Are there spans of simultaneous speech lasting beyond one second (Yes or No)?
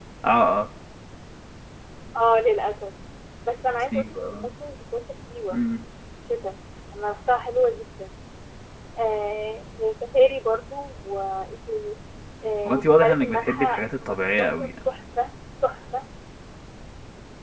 Yes